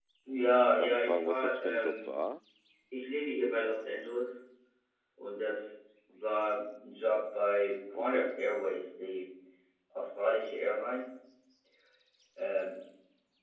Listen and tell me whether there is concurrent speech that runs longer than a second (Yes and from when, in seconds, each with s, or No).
Yes, from 0.8 s